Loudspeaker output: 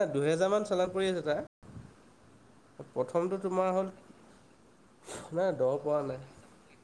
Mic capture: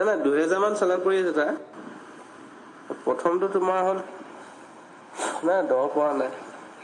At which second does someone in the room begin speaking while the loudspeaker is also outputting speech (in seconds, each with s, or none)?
none